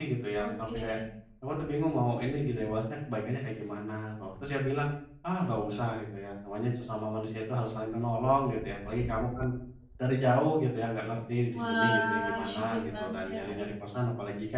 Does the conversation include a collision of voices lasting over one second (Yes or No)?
Yes